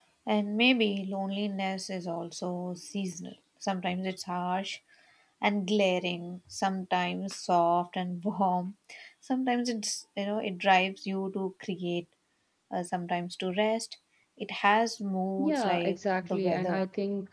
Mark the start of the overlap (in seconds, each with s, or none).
15.4 s